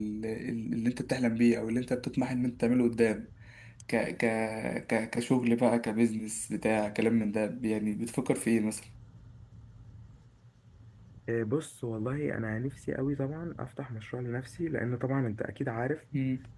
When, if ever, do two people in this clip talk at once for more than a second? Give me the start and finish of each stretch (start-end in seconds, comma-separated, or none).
none